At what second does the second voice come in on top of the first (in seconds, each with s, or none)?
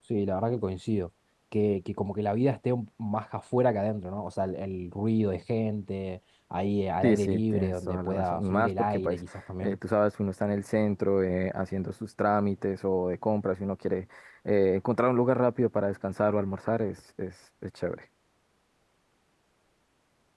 7.0 s